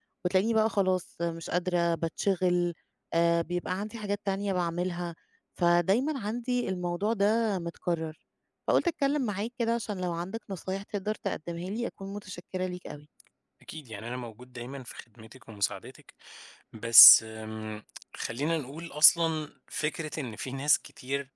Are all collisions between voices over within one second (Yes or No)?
Yes